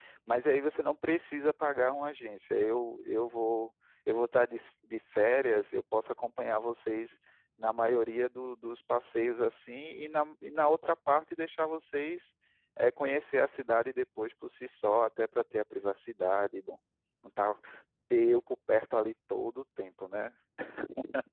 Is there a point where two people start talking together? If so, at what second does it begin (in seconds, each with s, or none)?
none